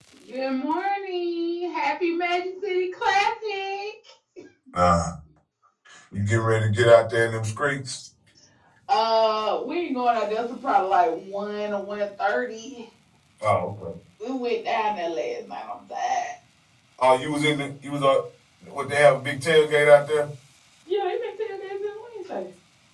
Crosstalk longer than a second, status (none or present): none